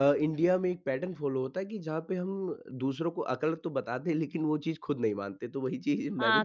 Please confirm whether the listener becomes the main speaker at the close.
Yes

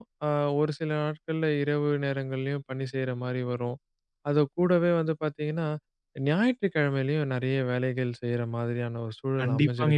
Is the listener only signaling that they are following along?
No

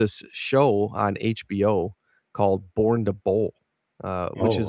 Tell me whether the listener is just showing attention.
Yes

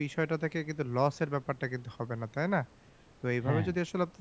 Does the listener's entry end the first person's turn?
No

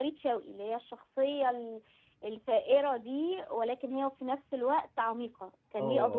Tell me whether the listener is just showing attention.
No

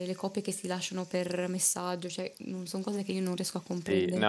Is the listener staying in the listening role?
No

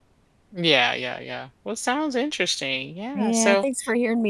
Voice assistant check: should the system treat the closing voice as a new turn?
Yes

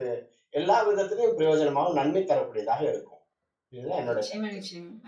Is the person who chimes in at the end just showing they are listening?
No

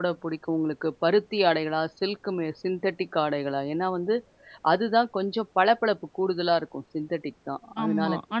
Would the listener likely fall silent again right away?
No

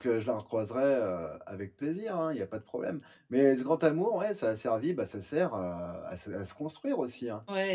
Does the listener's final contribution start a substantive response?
Yes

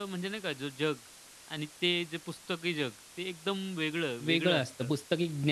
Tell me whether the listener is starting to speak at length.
Yes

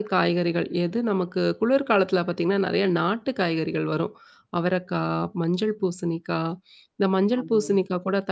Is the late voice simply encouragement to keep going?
Yes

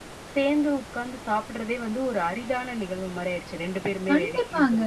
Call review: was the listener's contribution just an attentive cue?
No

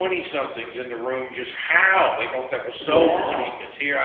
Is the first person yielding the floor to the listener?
No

